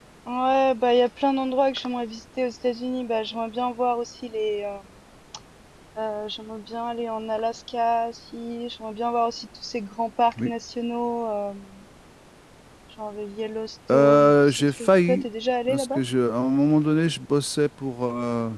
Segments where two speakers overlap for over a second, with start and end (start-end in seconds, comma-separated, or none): 13.9-15.2